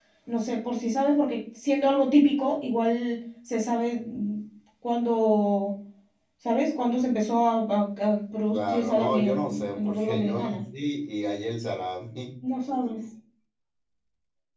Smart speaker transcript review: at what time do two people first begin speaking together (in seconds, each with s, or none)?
8.5 s